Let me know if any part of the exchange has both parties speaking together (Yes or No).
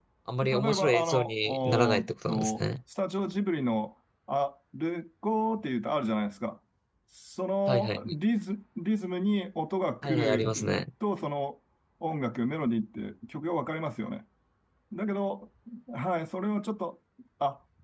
Yes